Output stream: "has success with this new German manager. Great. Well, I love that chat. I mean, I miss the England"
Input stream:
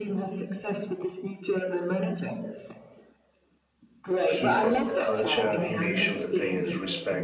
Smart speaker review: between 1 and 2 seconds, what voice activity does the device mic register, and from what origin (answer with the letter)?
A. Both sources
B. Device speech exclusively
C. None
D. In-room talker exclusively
B